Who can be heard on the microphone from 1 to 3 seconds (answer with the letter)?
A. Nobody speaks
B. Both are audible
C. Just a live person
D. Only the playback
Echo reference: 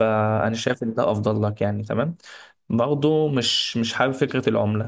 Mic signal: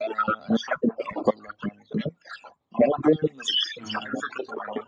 D